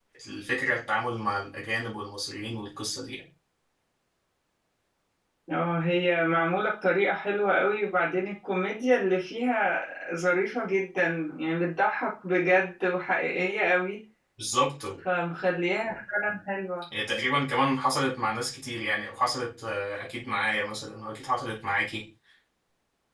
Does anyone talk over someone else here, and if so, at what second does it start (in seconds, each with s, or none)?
none